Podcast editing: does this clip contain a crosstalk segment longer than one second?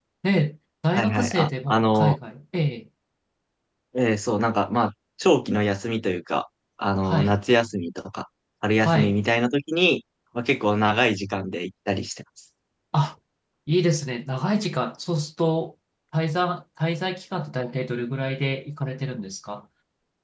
Yes, from 0.9 s

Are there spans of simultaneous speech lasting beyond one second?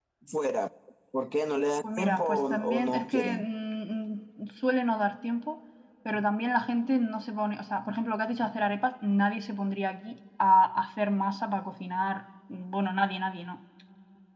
Yes, from 2.0 s

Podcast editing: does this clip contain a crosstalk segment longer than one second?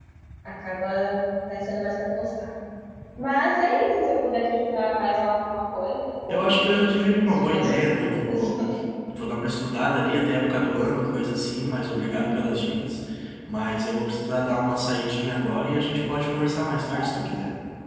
Yes, from 6.3 s

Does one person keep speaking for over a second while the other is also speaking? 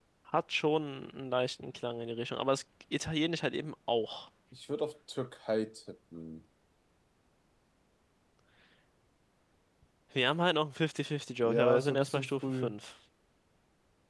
Yes, from 11.4 s

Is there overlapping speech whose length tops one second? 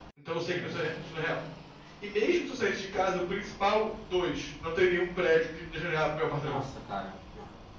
No

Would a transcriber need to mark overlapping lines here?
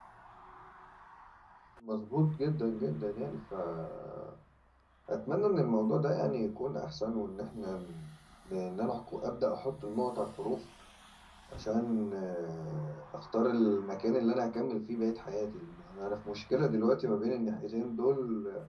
No

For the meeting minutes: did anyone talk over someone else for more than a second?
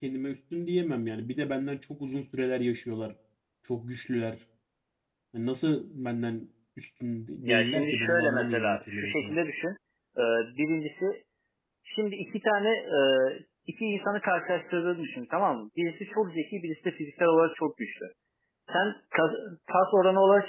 Yes, from 7.4 s

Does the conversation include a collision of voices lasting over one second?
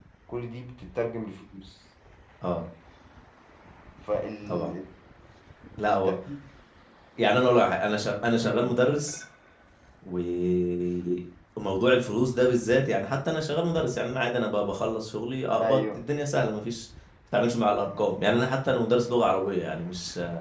No

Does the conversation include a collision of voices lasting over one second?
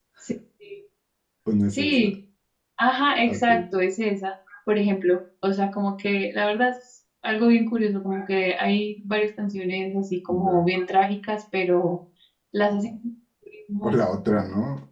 No

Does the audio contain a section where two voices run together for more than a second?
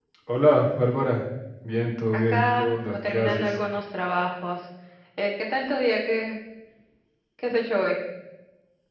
Yes, from 2.1 s

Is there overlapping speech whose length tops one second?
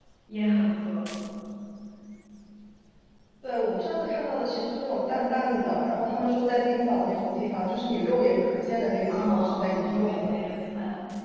Yes, from 9.1 s

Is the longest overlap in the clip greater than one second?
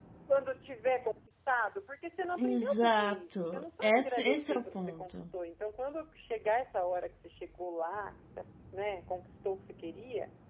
Yes, from 2.4 s

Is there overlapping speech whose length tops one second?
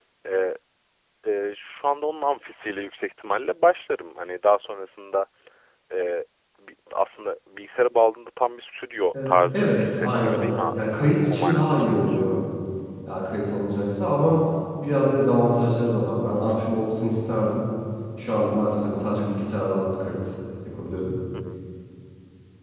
Yes, from 9.1 s

